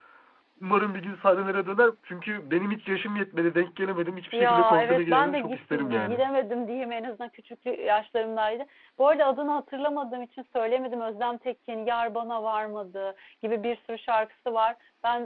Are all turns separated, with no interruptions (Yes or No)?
No